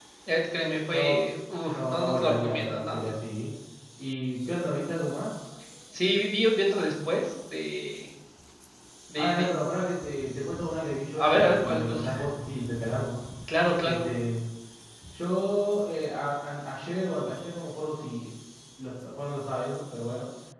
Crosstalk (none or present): present